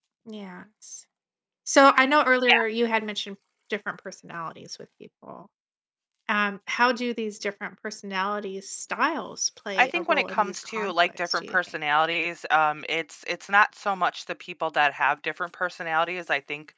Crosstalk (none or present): present